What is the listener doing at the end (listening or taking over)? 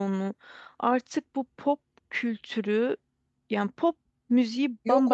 listening